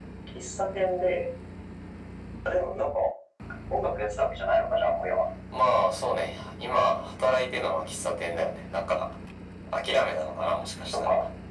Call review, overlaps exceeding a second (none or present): none